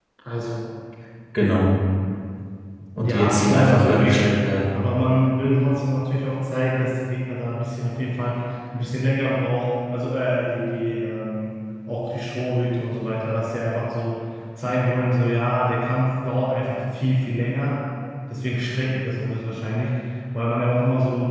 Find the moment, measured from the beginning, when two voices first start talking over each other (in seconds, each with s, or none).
3.0 s